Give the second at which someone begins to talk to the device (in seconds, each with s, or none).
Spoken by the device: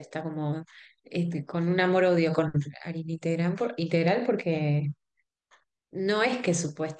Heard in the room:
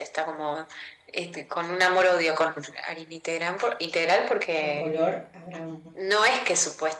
4.6 s